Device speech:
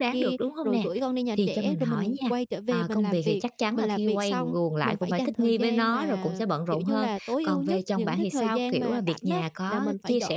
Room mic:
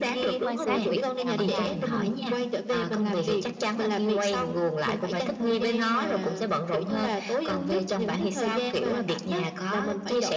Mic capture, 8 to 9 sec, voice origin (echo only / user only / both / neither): echo only